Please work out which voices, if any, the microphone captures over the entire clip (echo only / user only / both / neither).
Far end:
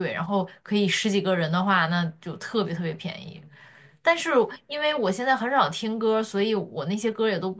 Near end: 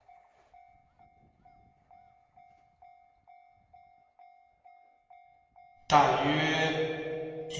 user only